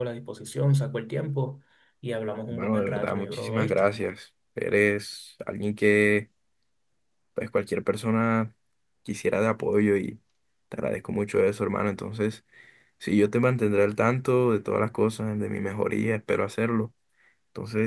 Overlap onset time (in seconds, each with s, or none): 2.5 s